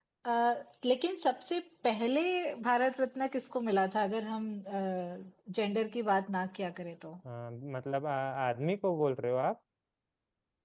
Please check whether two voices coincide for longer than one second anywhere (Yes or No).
No